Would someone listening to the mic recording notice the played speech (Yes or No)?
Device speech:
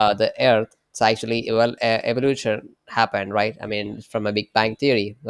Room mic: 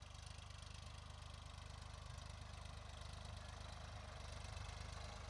No